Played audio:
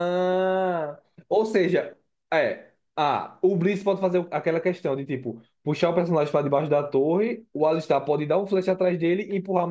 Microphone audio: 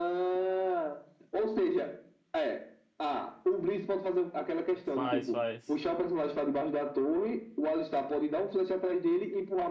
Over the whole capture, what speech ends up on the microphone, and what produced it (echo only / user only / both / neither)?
both